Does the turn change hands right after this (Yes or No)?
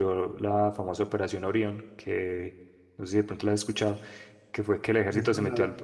No